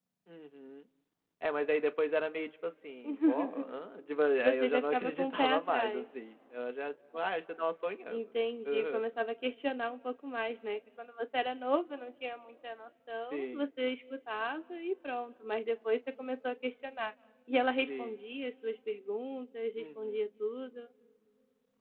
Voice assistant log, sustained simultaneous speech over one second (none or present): present